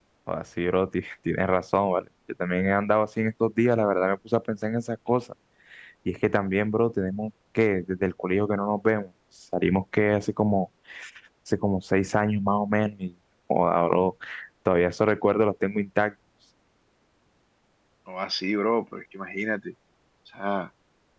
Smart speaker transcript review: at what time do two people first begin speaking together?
none

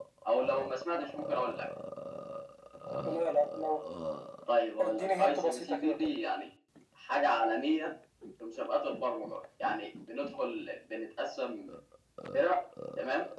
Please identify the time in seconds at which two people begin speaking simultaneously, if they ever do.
4.8 s

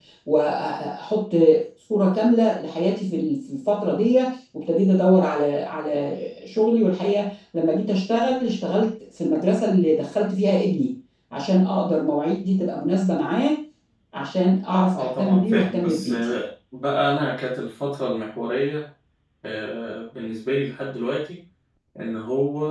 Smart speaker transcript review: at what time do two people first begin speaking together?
15.0 s

